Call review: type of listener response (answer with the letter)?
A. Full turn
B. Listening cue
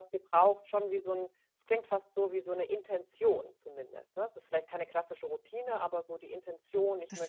A